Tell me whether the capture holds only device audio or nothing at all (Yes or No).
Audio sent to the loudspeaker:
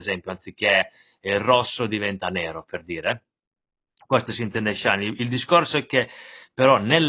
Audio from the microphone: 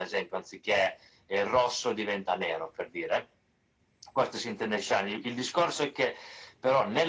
Yes